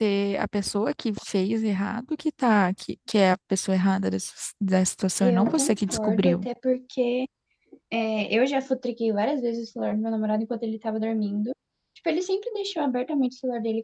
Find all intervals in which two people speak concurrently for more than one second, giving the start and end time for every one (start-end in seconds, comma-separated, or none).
5.2-6.5